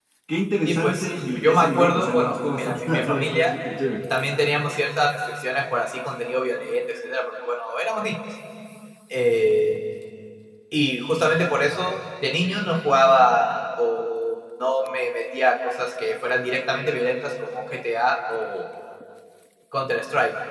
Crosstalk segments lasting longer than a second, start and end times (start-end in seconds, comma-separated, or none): 0.6-3.5